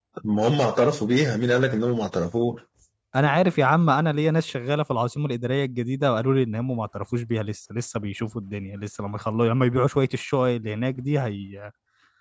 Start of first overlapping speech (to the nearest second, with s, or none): none